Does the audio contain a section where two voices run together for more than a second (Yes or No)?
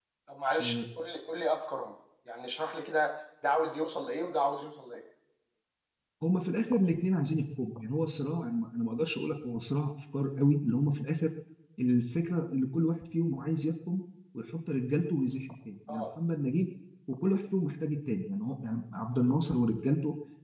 No